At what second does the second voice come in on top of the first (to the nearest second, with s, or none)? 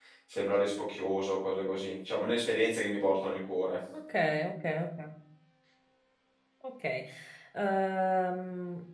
none